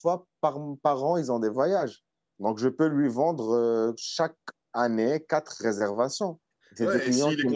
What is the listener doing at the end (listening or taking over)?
taking over